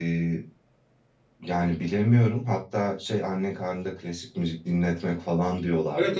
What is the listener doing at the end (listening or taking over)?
taking over